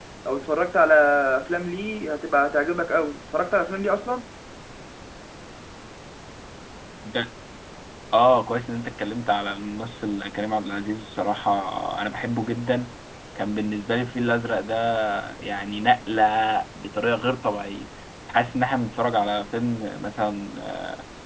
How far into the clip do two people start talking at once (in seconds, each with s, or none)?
none